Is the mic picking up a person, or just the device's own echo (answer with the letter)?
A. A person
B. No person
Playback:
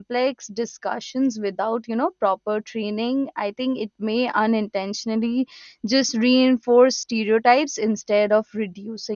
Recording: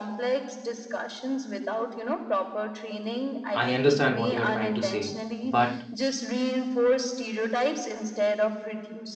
A